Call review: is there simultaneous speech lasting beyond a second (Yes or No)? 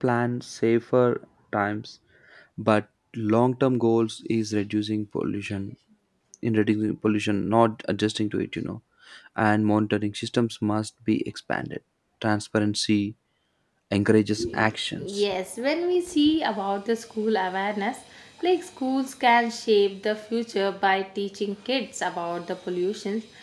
No